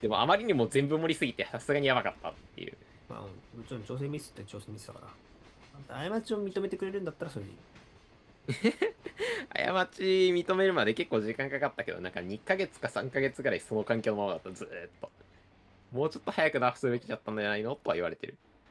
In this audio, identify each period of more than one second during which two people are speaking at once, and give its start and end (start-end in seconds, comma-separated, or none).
none